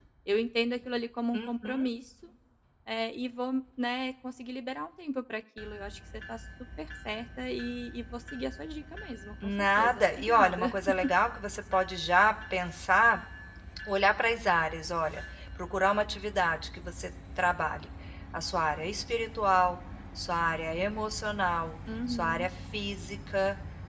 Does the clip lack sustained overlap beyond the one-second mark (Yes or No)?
No